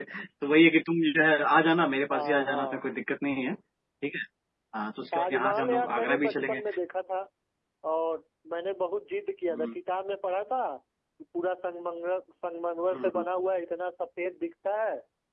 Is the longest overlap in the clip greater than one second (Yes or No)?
Yes